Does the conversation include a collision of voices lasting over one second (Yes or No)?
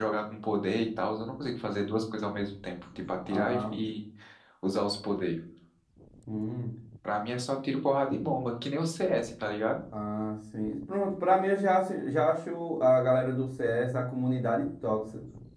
No